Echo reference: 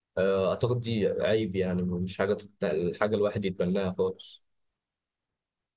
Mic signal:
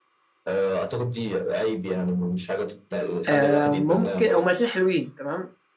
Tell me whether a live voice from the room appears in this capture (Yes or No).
Yes